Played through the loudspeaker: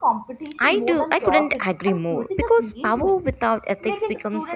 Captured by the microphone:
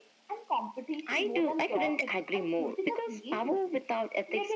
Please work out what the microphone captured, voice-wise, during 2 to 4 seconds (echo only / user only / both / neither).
echo only